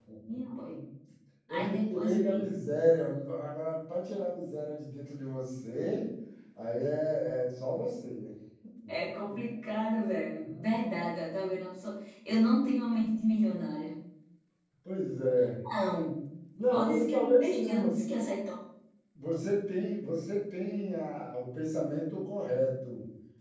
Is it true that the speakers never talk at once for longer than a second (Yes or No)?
No